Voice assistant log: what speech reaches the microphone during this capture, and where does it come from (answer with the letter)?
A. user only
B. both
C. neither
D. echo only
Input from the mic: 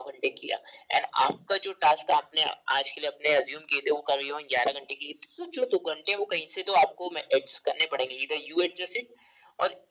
D